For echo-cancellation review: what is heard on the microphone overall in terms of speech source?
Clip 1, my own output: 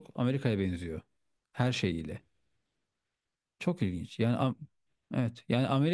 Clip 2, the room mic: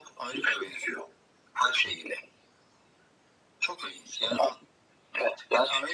echo only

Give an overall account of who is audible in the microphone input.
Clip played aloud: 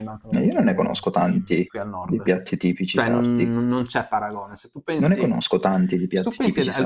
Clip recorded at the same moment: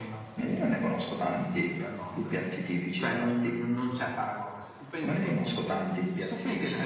echo only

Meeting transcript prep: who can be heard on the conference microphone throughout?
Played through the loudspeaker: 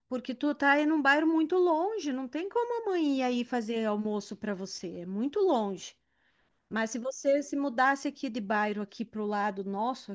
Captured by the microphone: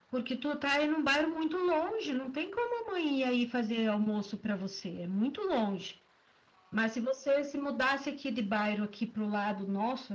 echo only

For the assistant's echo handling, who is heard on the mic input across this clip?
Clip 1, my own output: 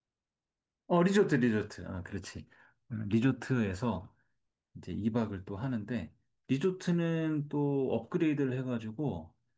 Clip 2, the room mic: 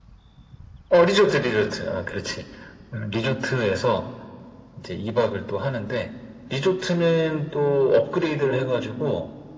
both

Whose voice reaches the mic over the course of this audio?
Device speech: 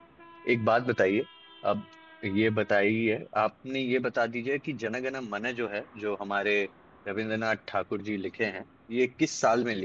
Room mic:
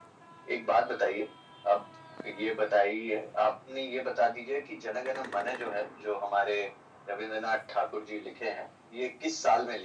echo only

